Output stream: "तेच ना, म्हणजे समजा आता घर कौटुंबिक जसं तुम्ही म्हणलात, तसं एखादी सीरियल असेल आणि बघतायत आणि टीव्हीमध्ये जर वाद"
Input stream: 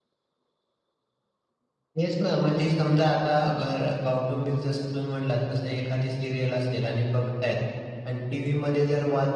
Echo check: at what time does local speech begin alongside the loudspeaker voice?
none

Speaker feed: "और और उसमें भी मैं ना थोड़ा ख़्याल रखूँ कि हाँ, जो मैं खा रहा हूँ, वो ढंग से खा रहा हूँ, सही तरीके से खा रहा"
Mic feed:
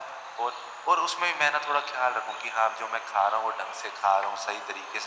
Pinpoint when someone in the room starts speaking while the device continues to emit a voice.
none

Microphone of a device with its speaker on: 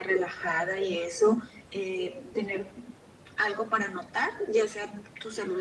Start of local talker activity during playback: none

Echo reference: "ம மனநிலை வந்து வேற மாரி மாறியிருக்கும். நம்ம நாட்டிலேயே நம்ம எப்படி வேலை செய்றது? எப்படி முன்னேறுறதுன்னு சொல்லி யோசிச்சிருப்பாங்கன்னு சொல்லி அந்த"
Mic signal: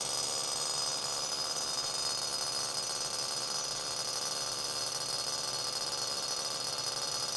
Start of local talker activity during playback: none

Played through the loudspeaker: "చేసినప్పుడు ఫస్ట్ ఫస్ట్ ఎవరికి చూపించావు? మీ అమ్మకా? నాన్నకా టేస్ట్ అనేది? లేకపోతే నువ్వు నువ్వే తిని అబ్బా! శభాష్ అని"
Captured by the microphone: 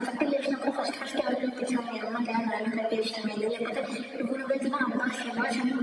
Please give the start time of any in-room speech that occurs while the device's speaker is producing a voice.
none

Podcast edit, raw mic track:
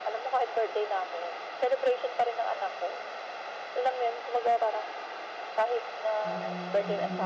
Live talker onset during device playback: 6.2 s

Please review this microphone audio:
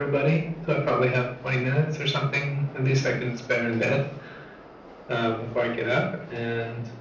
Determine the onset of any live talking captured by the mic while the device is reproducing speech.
none

